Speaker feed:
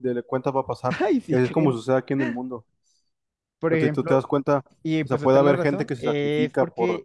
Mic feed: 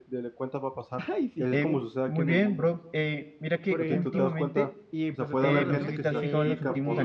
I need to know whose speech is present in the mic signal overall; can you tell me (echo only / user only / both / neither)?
both